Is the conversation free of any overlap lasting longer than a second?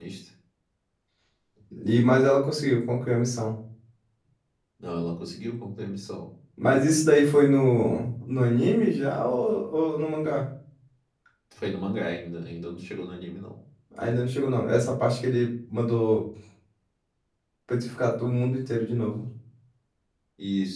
Yes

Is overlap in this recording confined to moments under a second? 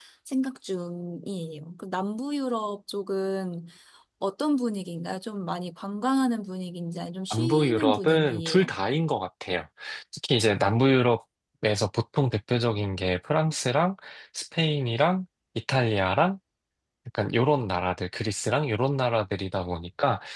No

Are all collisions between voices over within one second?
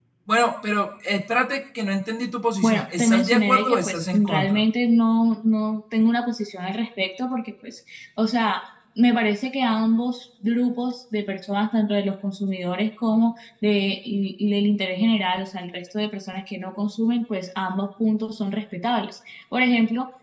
No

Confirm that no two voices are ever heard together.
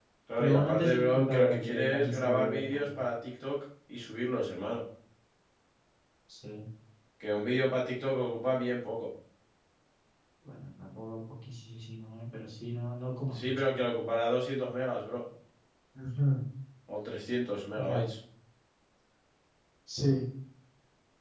No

